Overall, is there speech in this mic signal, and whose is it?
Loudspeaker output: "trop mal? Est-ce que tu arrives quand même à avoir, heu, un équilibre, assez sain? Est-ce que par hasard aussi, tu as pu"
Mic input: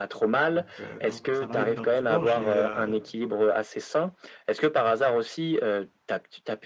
both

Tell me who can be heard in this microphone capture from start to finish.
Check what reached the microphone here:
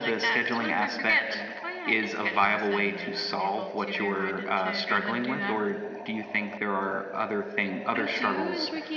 both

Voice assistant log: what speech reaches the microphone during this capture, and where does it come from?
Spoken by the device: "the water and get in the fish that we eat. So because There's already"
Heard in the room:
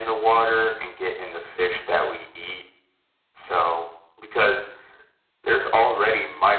echo only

